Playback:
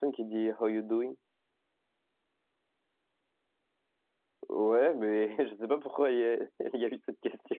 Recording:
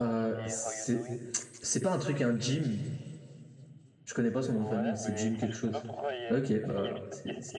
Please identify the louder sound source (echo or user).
user